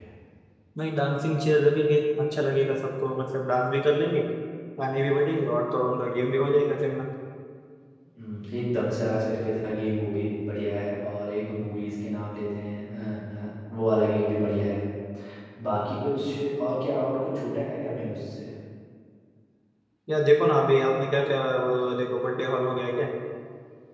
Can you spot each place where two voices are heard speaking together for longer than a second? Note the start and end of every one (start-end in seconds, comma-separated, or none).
none